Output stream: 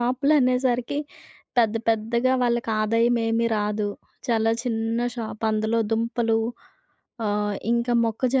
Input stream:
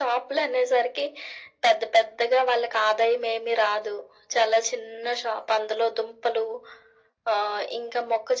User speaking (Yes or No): No